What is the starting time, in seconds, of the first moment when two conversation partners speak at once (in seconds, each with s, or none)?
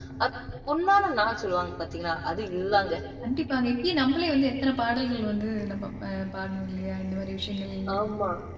none